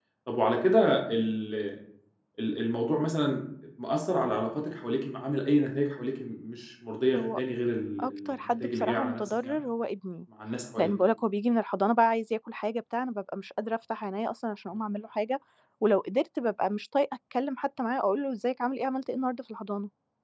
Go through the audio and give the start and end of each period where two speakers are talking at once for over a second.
8.0-9.6

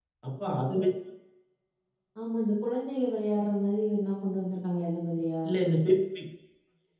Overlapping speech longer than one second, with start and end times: none

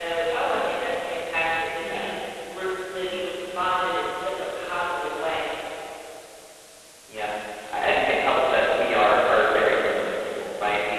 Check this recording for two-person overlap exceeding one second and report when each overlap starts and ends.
none

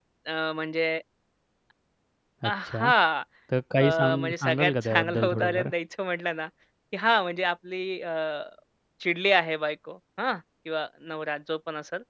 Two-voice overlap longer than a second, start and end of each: 3.8-5.7

